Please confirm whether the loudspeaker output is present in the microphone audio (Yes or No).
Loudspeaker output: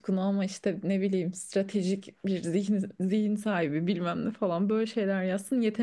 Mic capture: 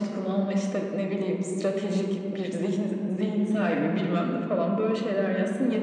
Yes